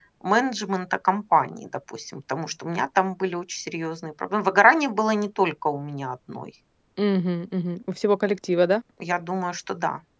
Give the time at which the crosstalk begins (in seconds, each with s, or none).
none